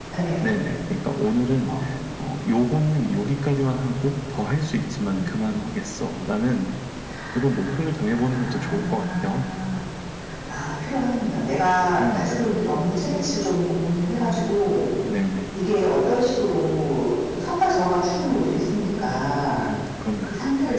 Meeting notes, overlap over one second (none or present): present